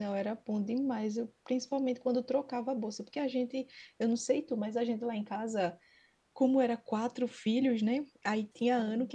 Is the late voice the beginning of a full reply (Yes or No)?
No